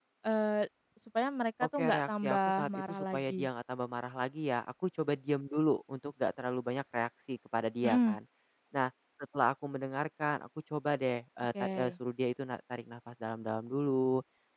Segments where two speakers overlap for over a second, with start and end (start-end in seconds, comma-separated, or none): 1.8-3.5